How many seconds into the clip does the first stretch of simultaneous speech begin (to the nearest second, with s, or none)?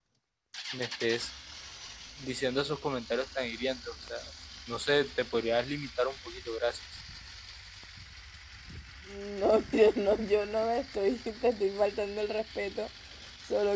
none